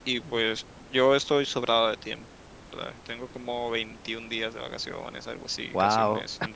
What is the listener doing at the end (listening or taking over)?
listening